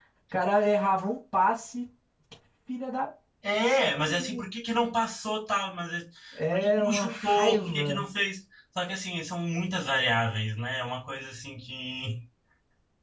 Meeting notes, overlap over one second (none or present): present